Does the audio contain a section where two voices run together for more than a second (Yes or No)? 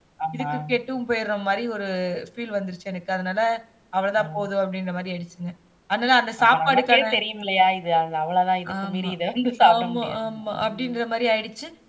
Yes